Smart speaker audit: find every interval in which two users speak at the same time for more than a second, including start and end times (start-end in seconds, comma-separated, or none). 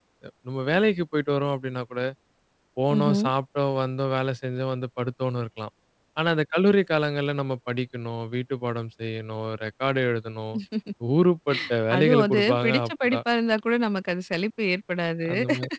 12.0-13.2